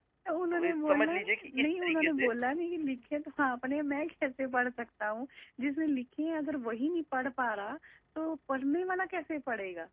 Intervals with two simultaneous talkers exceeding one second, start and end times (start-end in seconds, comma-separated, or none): 0.5-2.3